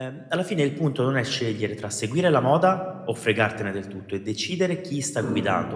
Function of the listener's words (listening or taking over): listening